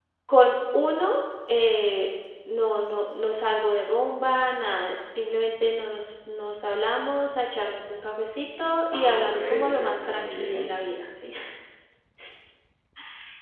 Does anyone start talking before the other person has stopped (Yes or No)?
Yes